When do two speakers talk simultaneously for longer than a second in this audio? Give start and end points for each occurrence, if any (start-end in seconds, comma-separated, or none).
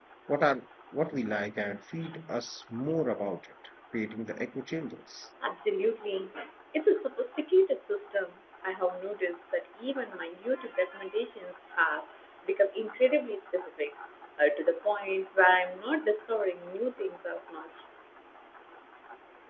none